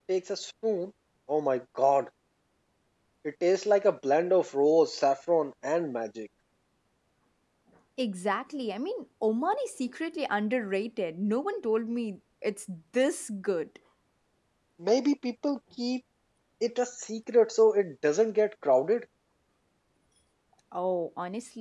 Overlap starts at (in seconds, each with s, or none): none